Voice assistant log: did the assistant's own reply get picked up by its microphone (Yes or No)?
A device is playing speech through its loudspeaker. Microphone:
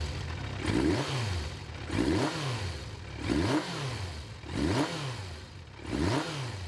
No